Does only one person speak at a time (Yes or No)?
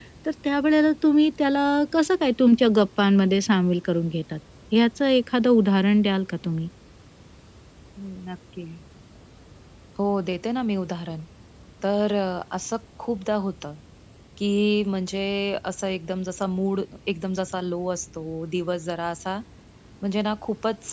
Yes